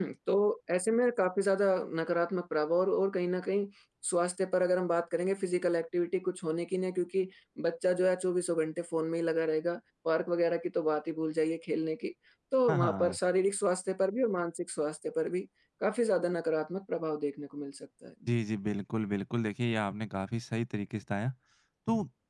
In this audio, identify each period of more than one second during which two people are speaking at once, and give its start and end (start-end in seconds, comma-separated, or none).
none